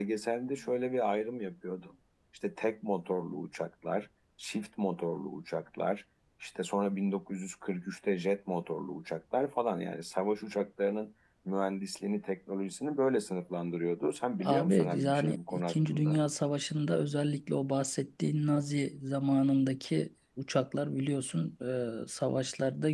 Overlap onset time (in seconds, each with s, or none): 14.4 s